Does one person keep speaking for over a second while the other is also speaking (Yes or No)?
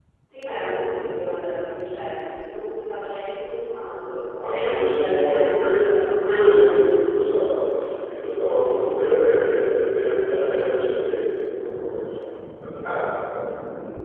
Yes